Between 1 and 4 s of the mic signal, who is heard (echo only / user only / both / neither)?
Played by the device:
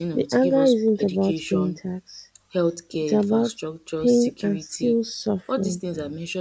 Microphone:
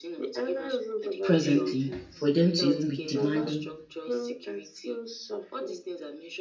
both